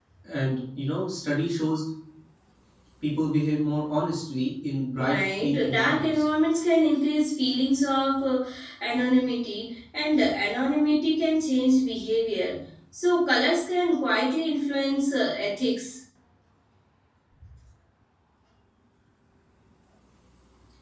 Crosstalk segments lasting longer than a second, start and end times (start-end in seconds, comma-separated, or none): 5.0-6.2